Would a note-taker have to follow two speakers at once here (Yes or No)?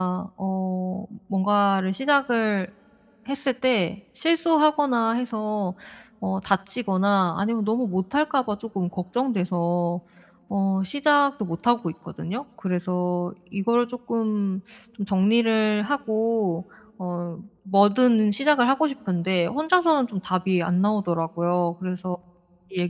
No